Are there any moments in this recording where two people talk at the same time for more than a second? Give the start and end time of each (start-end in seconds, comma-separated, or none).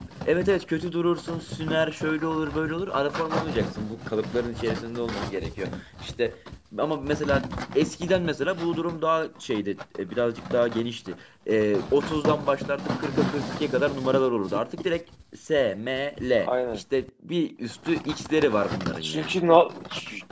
none